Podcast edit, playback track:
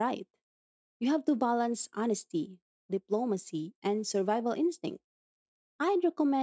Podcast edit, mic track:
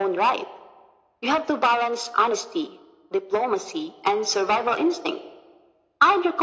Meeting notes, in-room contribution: none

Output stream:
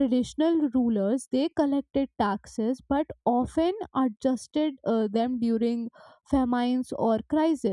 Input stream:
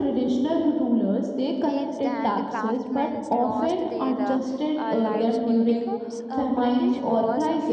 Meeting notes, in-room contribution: present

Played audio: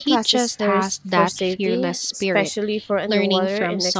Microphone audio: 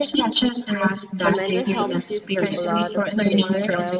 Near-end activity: present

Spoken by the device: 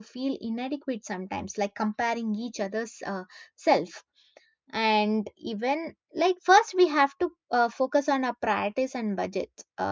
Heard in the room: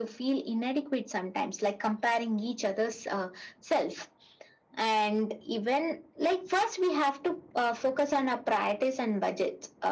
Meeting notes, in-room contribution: none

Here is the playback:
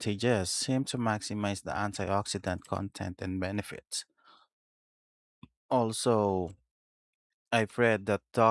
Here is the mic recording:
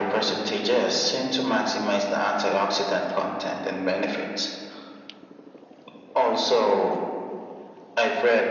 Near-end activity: none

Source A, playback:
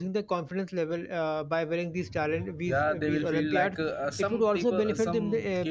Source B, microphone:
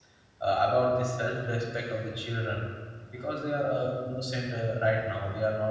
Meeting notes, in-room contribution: present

